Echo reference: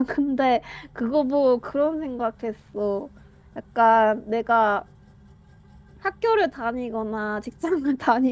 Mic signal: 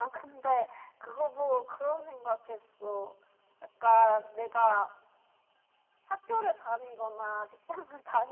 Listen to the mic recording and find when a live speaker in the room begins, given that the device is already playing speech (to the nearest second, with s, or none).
none